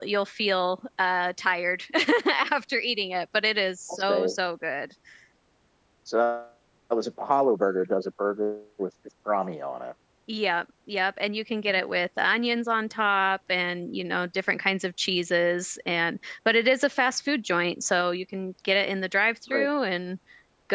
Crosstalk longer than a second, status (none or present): none